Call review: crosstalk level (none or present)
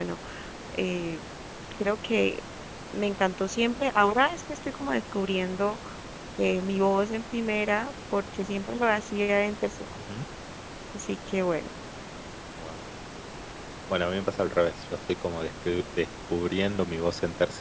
none